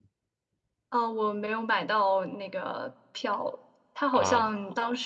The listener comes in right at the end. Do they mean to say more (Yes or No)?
No